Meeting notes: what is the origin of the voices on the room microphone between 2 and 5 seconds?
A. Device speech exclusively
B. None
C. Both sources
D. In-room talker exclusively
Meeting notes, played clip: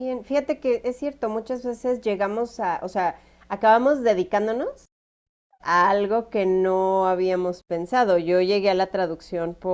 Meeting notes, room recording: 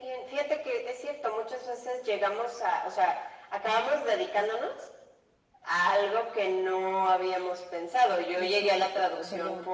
A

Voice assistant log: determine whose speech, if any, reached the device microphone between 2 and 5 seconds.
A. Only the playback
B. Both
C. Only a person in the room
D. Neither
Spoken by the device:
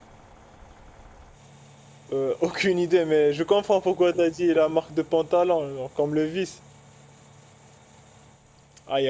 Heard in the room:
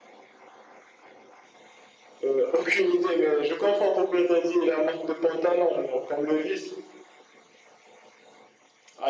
A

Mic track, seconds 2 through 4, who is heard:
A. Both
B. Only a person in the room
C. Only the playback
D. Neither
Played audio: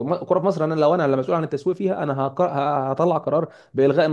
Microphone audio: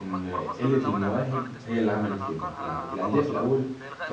A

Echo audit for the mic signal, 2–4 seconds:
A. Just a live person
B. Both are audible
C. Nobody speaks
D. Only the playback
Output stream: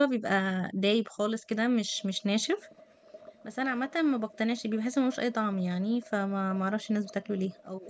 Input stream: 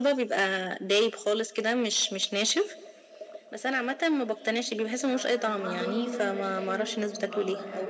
D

